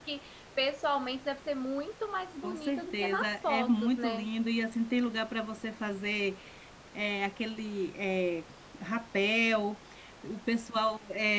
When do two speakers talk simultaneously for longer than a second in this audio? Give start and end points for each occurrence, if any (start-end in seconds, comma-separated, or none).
2.4-4.3